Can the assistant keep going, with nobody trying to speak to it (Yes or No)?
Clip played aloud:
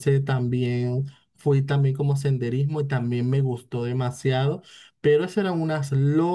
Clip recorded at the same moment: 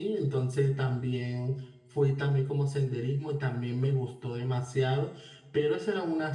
Yes